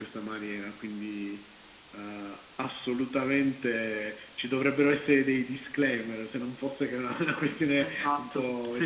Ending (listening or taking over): taking over